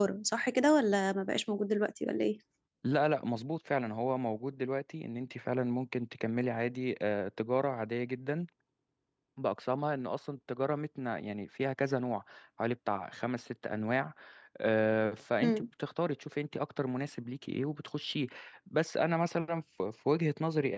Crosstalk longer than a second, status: none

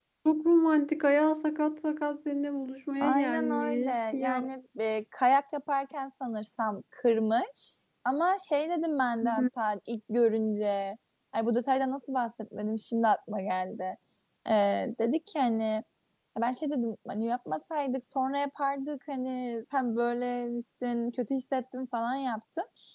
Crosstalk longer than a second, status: present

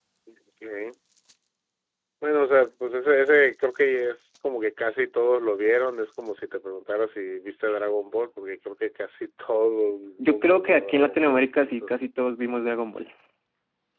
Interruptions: present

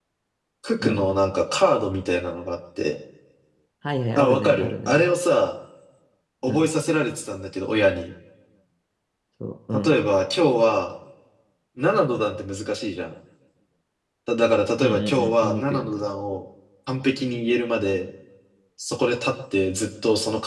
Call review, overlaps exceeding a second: present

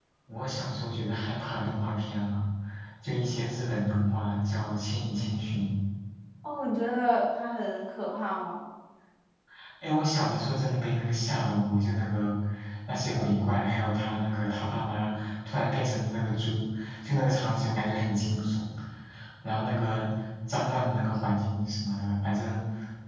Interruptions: none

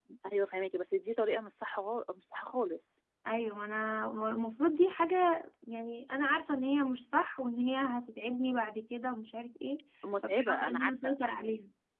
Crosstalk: present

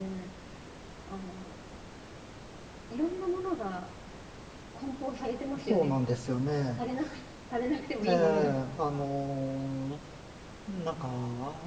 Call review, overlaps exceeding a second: none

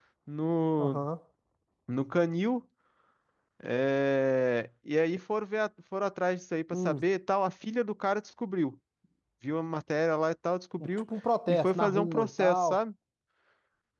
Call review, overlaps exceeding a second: present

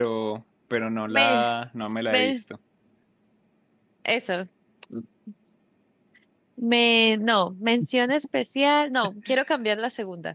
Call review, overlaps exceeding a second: none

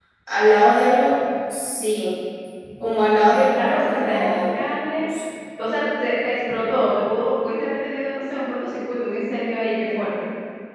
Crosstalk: present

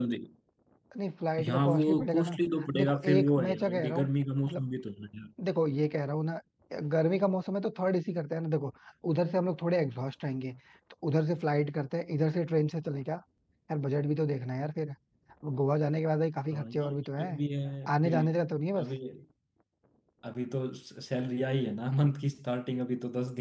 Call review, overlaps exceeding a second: present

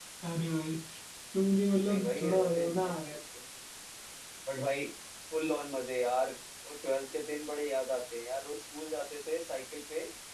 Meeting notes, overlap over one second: present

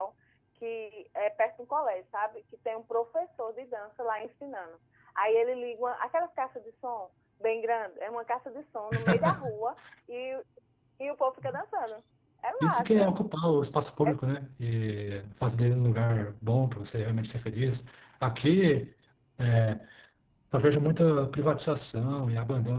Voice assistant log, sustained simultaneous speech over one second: none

